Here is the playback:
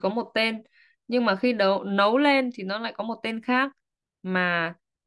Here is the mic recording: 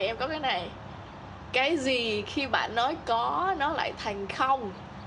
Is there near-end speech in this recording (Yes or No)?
Yes